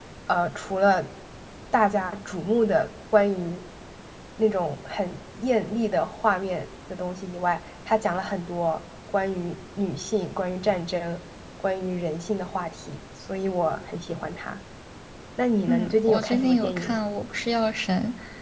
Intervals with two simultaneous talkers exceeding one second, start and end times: 15.7-17.0

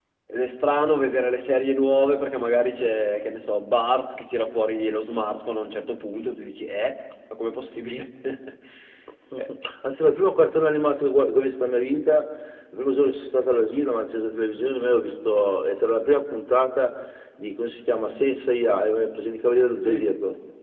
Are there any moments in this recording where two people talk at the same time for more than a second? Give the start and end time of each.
none

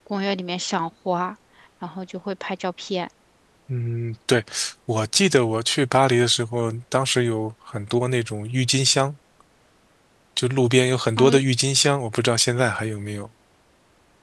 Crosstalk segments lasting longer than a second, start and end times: none

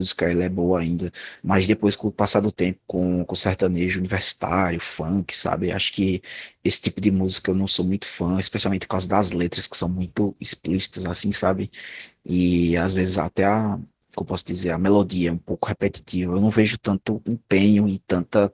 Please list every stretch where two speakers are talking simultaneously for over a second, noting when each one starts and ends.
none

